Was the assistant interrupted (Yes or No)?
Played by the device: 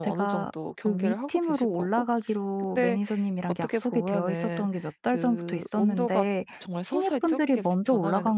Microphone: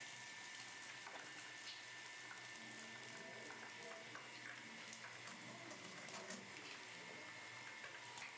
No